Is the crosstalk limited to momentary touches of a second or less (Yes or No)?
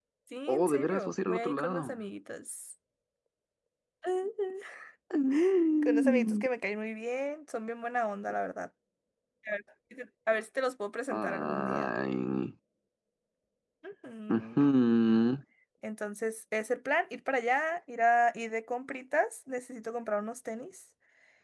No